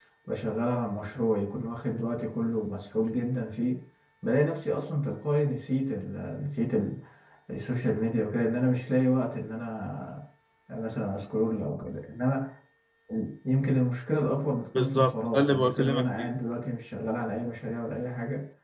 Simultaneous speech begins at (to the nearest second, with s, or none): 15 s